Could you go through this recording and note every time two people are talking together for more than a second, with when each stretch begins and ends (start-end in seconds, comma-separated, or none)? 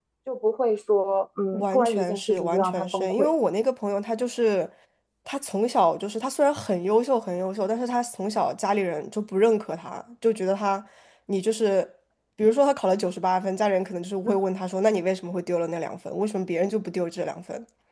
1.5-3.3